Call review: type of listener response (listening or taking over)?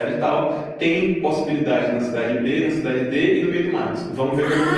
taking over